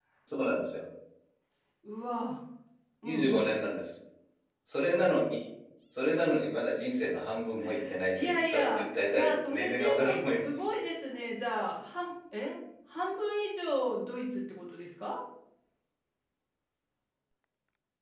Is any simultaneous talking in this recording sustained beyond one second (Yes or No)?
Yes